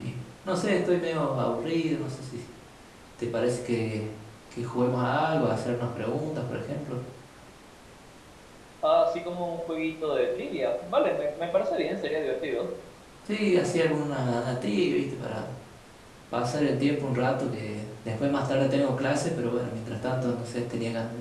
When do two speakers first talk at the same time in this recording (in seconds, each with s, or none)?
none